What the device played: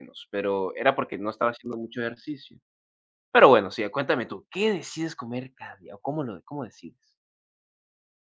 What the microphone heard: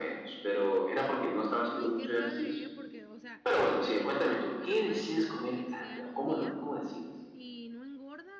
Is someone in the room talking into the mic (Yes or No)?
Yes